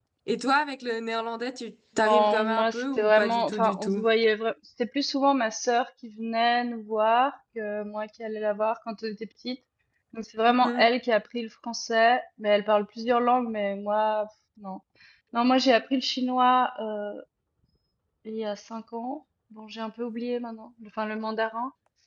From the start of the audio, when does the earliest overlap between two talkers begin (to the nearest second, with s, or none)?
2 s